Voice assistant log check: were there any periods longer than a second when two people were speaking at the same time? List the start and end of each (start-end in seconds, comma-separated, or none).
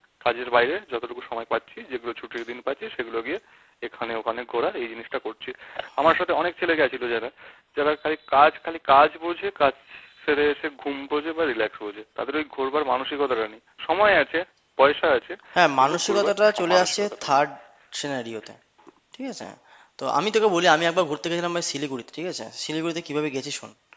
15.8-17.4